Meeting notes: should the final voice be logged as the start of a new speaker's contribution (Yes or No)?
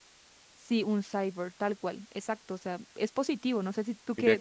Yes